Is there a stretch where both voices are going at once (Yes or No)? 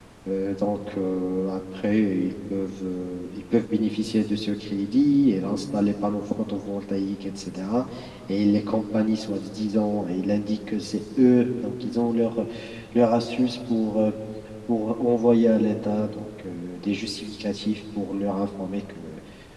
No